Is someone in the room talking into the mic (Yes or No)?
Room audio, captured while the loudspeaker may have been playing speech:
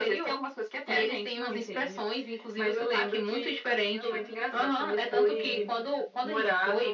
Yes